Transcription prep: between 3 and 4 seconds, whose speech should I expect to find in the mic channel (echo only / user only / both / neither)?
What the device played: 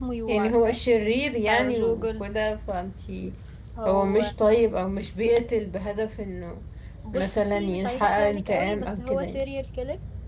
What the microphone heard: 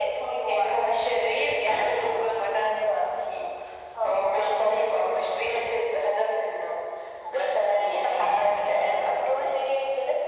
echo only